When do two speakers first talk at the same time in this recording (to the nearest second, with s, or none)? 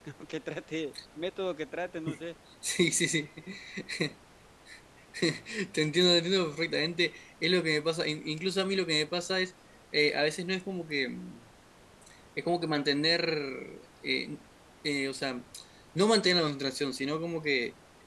none